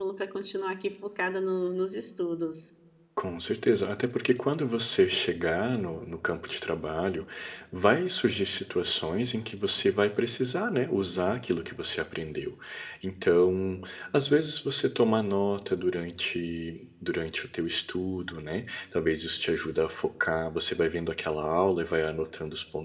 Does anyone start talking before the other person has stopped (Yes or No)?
No